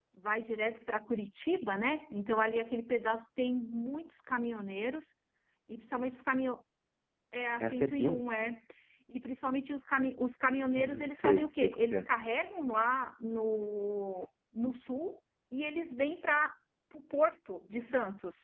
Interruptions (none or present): present